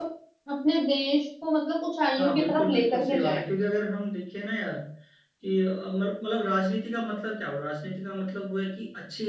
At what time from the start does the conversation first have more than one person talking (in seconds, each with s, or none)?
2.1 s